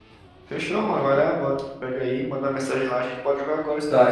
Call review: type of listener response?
taking over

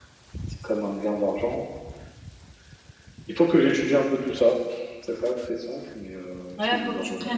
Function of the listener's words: taking over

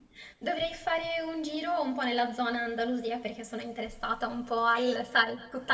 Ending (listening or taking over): listening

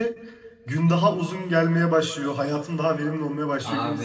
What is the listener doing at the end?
taking over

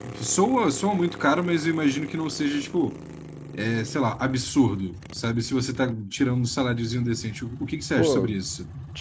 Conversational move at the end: taking over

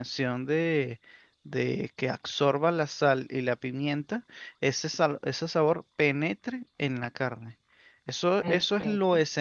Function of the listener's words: listening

